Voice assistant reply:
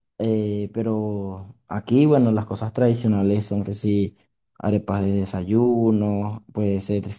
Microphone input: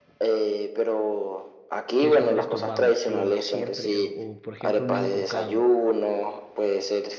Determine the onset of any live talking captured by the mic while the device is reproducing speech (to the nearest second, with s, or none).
2 s